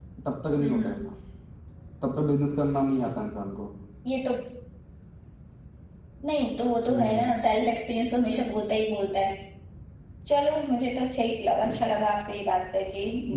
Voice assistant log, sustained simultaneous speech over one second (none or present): none